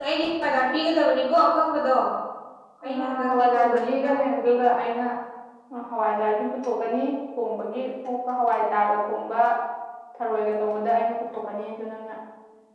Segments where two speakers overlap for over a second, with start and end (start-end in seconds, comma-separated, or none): 2.9-4.1